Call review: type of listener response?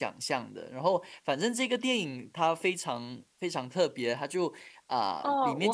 taking over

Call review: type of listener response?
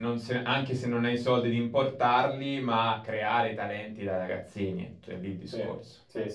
taking over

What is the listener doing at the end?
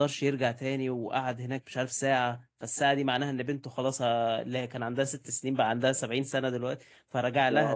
listening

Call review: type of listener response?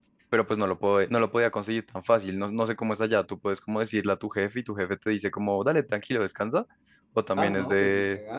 taking over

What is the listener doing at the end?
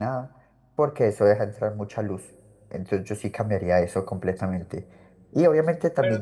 listening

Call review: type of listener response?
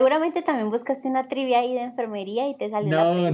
taking over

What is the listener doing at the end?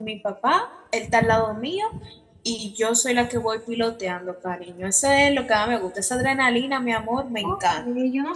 taking over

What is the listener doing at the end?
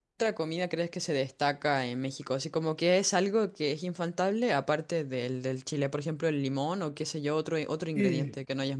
taking over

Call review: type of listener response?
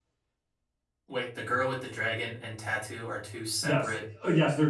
taking over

